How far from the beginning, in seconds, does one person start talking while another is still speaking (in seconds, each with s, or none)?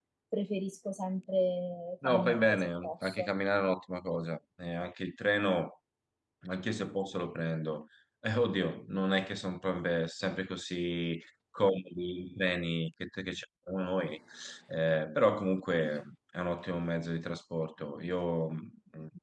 2.0 s